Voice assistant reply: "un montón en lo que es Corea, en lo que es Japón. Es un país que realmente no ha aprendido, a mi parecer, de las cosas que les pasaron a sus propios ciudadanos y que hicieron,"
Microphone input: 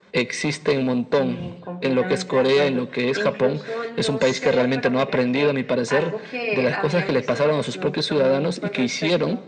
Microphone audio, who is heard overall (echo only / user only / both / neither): both